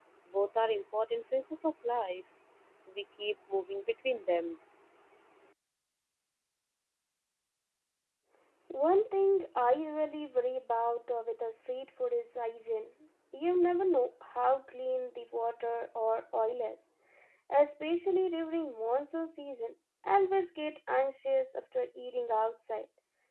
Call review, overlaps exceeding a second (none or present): none